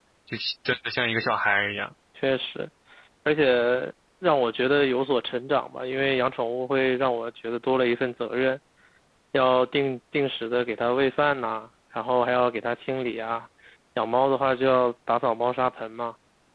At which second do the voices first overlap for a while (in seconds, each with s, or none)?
none